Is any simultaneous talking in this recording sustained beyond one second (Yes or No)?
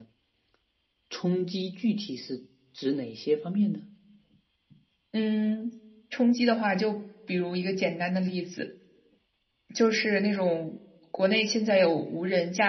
No